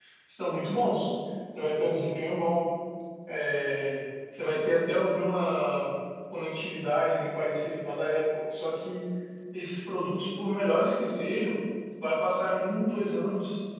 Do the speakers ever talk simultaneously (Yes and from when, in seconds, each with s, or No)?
No